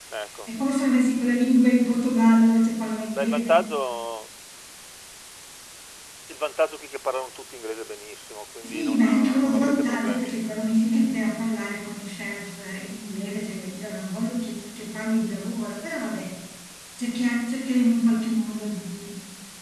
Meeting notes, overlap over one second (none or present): present